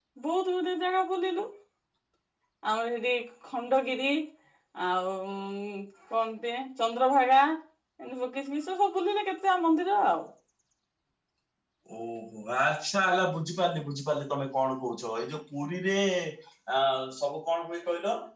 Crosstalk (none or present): none